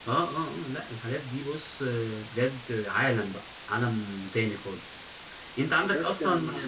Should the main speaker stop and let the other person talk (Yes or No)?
No